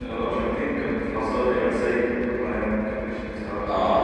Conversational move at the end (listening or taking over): taking over